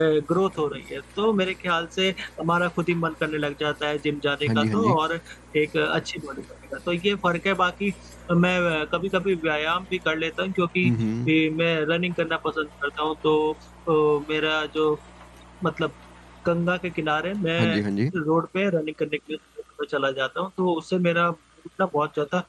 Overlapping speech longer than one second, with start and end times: none

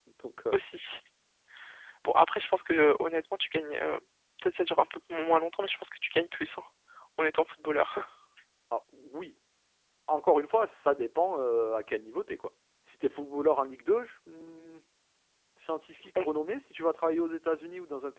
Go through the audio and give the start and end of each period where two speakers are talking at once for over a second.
none

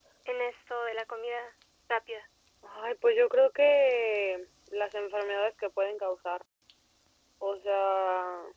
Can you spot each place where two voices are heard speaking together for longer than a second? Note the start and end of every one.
none

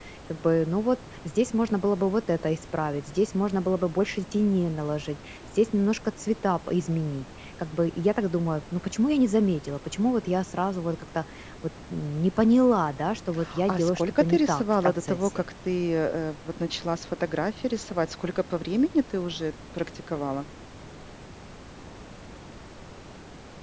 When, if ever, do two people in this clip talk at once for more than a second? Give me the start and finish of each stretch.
13.7-15.4

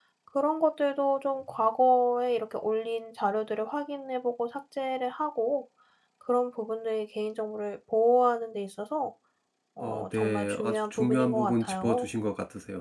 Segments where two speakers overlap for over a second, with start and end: 9.8-12.1

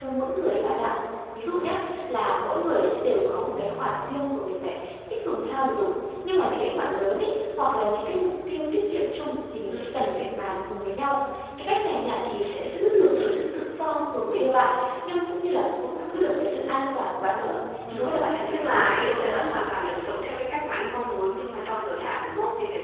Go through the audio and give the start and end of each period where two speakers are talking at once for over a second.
17.9-19.4

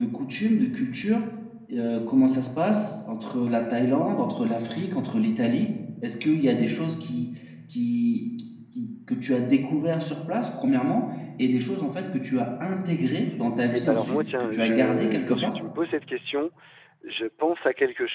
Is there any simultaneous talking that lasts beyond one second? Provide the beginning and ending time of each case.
13.7-15.5

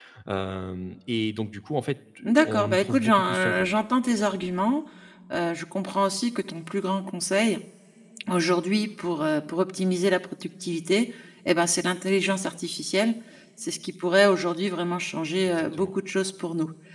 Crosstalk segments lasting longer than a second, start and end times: 2.4-3.7

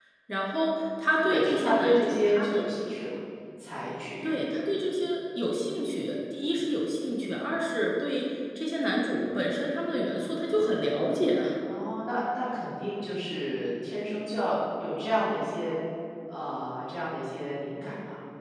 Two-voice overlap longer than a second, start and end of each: 1.3-2.7

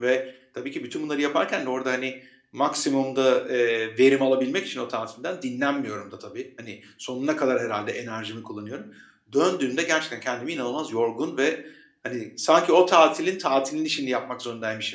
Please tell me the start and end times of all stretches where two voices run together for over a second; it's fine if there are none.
none

